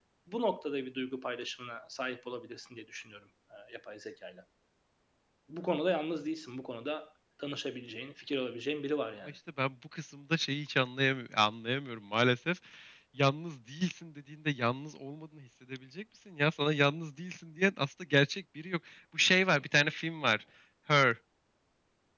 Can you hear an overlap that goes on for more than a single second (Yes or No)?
No